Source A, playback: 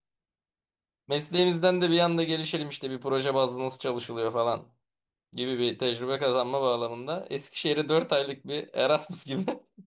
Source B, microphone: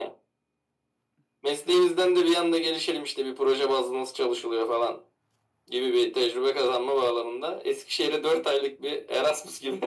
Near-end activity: none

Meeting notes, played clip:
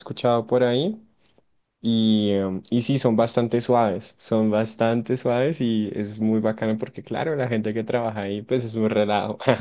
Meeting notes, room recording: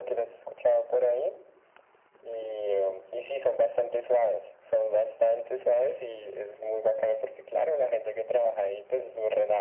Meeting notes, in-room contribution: none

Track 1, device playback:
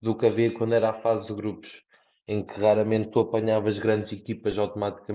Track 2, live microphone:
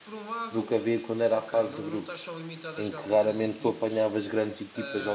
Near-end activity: present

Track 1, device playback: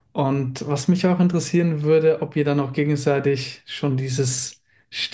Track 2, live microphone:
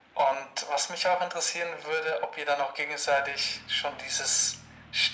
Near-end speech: none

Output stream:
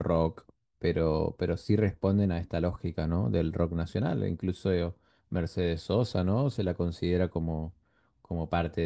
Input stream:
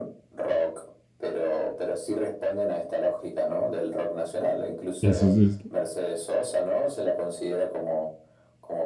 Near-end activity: present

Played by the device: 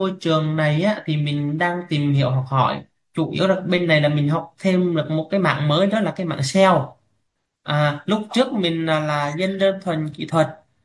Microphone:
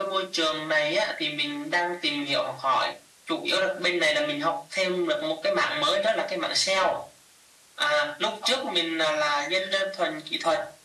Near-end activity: none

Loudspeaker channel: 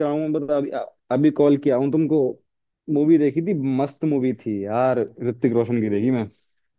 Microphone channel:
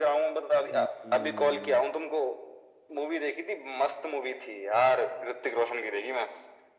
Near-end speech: present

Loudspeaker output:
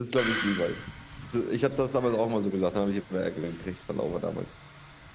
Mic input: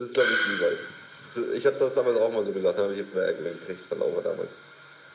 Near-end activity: none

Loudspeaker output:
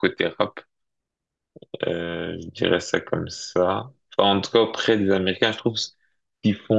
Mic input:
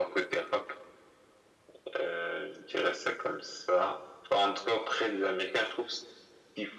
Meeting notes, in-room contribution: none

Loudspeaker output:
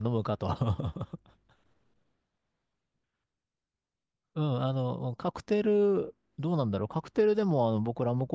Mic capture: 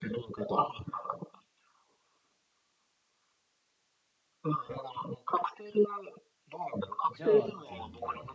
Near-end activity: present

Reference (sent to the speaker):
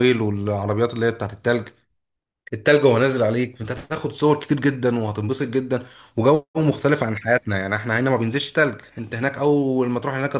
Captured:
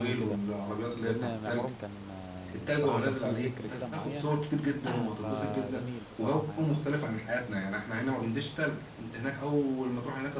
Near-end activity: present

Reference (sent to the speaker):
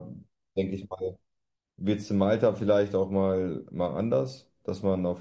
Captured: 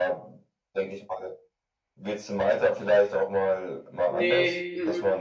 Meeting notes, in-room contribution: present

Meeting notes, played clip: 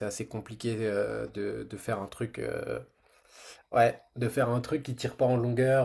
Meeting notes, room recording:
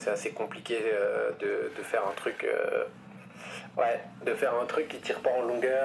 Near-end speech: none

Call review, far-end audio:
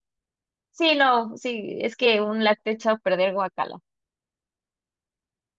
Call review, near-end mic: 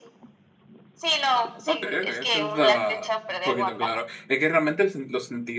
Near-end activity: present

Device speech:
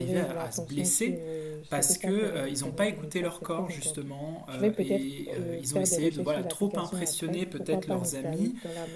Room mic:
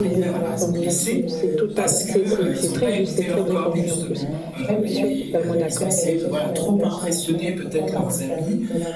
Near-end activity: present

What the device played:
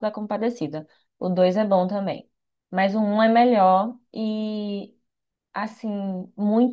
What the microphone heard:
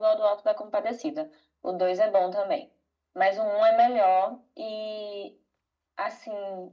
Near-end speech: none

